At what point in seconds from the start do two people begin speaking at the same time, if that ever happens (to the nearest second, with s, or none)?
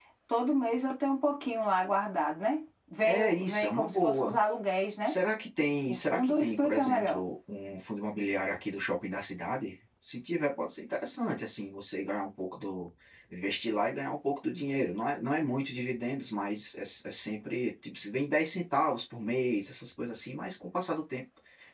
3 s